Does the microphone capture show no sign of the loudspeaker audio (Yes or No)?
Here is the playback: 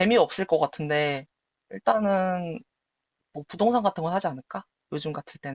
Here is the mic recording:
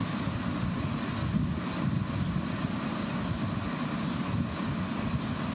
Yes